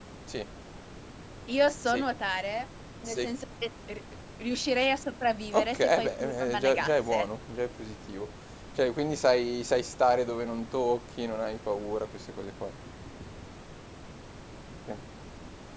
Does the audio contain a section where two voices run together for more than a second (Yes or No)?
Yes